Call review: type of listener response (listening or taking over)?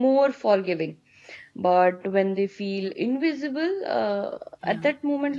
listening